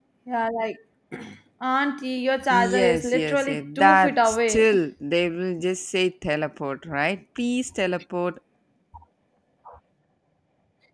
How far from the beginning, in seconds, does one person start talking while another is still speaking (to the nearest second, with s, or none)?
3 s